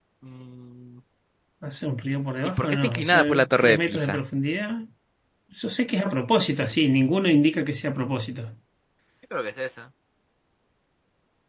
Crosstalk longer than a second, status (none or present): present